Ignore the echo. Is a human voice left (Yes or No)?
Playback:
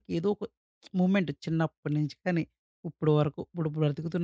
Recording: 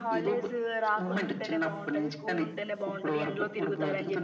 Yes